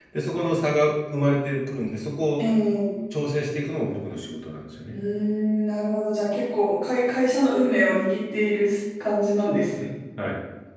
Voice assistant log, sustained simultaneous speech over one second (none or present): none